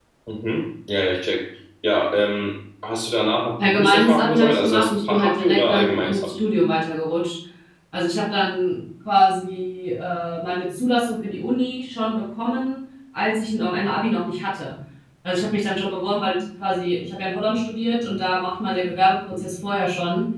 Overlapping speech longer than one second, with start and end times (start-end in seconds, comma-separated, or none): 3.6-6.3